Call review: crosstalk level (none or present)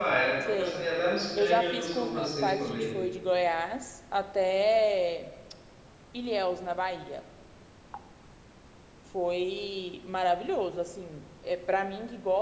present